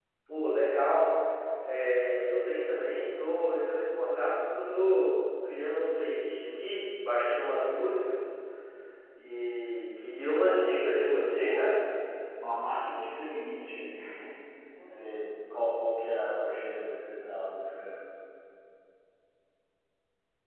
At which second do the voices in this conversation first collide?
10.4 s

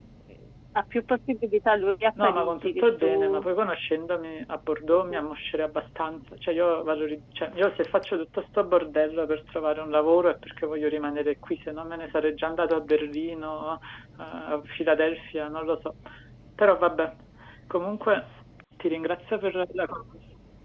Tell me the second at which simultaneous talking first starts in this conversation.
2.2 s

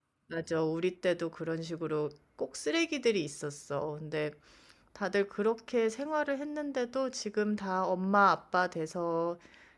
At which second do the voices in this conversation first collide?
none

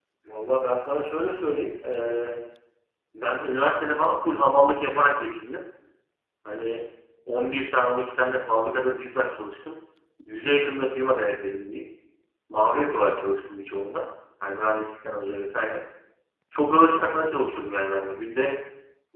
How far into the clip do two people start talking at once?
none

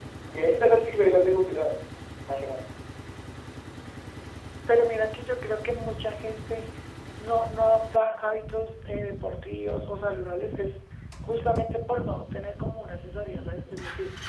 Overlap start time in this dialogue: none

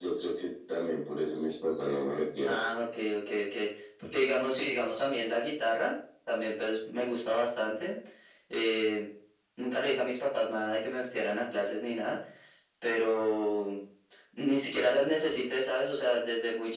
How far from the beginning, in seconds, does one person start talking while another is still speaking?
none

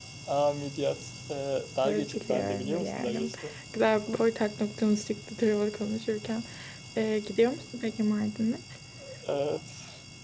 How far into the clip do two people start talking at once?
1.8 s

